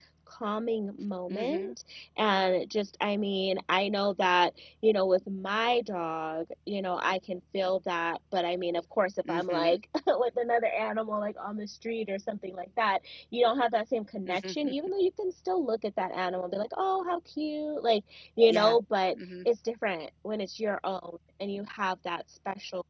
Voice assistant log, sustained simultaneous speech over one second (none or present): none